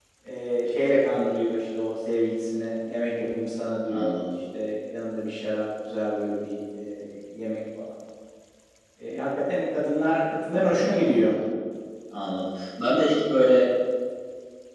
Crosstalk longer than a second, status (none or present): none